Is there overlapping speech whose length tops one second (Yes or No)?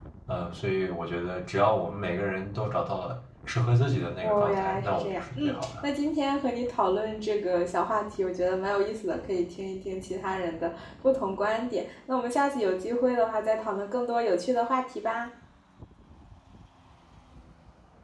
Yes